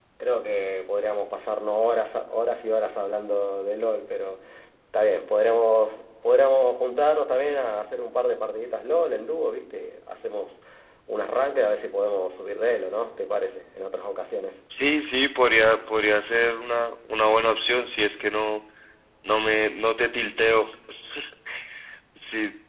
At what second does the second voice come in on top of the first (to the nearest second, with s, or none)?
none